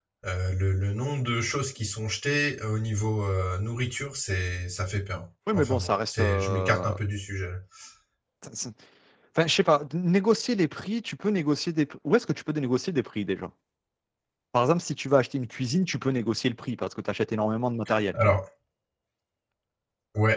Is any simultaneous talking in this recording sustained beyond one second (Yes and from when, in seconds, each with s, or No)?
Yes, from 5.5 s